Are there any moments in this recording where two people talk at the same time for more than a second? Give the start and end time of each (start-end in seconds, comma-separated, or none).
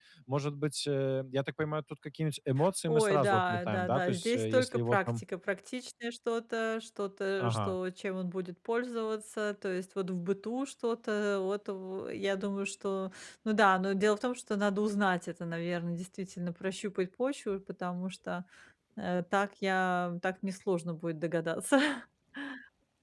2.9-5.2